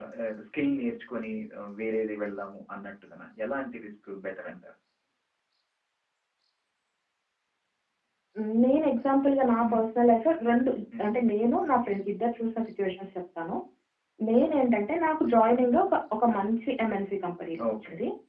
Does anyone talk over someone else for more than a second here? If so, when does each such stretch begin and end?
none

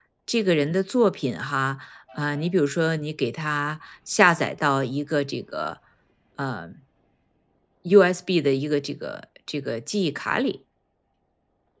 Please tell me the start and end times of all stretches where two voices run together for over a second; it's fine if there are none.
none

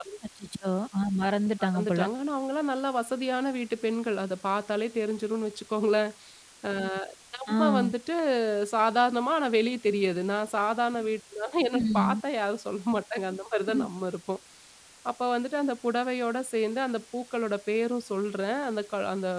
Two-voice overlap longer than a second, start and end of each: none

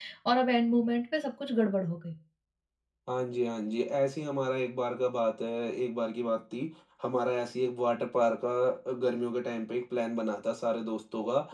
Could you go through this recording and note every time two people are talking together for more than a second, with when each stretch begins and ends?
none

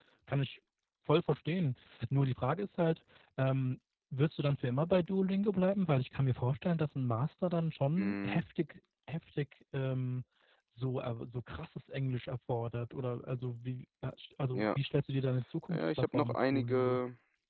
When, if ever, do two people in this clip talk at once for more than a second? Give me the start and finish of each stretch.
15.7-17.0

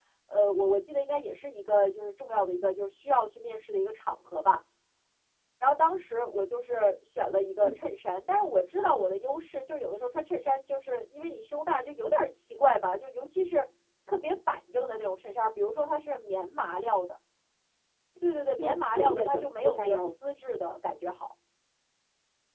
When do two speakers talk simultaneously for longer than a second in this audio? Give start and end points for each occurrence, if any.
18.6-20.1

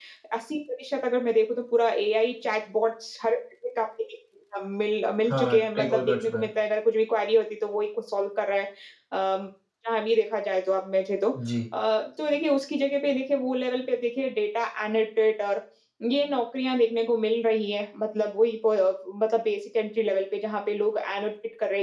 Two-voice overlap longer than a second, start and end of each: 5.3-6.5

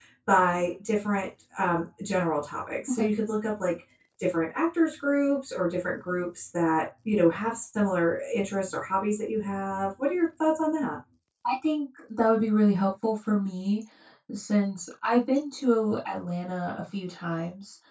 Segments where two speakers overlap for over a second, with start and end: none

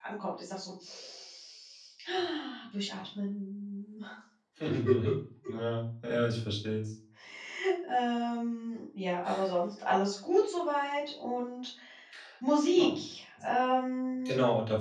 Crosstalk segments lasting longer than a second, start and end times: none

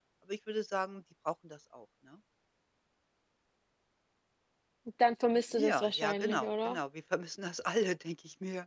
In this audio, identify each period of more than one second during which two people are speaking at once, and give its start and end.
5.5-6.8

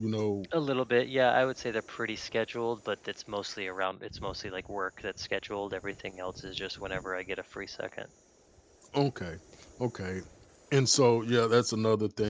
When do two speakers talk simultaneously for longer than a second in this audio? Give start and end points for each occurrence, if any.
none

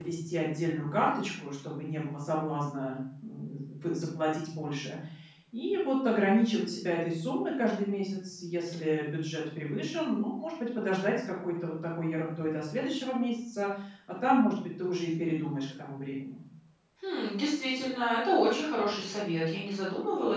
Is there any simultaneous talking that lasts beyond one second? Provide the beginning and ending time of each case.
none

